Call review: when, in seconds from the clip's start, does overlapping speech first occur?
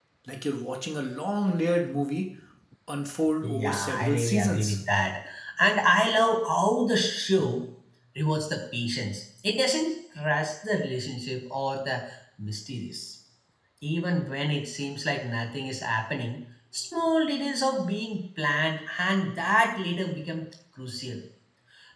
3 s

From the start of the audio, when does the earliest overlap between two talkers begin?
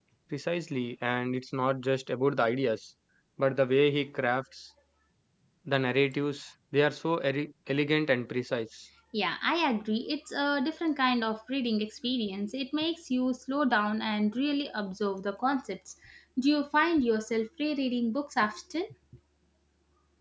none

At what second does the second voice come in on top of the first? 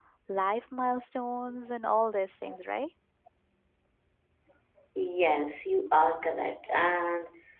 none

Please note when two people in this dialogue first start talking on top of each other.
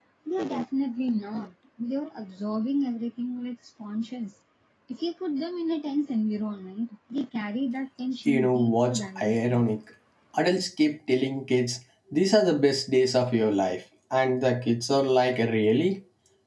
8 s

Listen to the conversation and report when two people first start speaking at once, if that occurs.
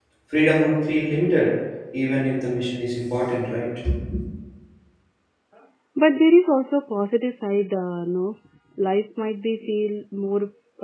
none

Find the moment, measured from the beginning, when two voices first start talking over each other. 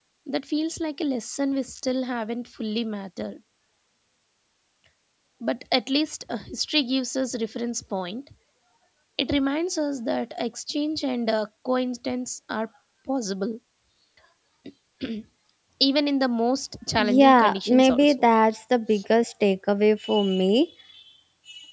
17 s

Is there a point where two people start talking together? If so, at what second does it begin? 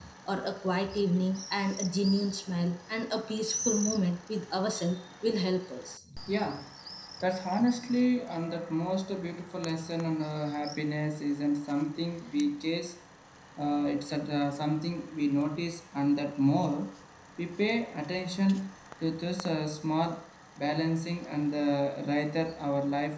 none

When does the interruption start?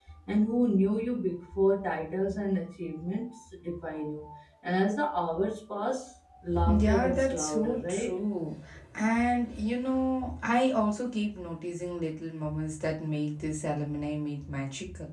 7 s

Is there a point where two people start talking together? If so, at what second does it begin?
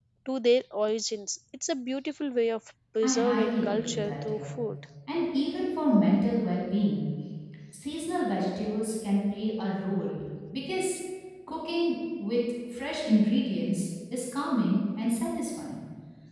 3 s

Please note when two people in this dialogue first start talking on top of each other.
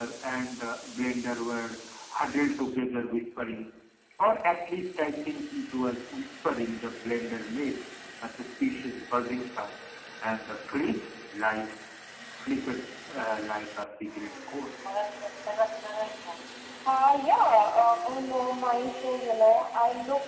none

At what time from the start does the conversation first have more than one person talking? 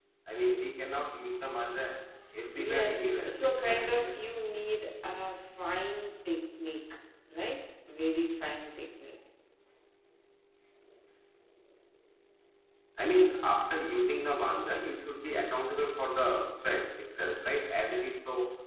3 s

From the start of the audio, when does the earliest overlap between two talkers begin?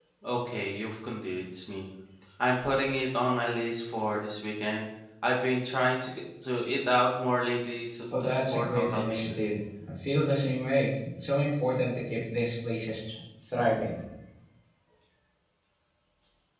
8 s

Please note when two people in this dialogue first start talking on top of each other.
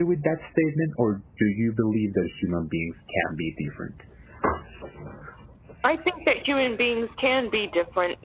none

